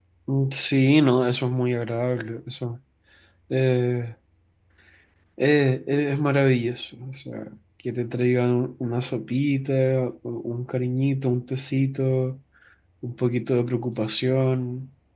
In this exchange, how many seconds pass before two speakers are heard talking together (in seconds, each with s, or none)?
none